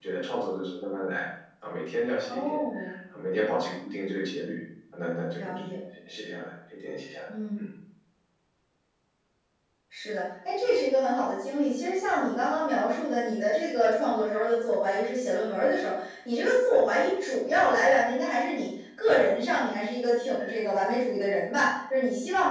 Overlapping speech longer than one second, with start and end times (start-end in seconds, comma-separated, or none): none